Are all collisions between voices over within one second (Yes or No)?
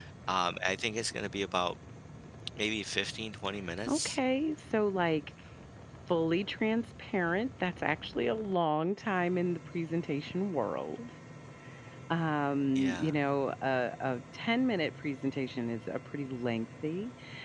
Yes